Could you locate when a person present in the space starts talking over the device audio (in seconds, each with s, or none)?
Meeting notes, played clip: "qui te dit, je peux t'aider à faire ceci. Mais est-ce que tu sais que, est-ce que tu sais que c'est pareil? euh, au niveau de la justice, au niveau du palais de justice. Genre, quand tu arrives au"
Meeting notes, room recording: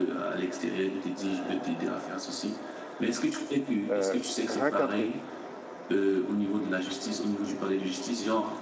3.9 s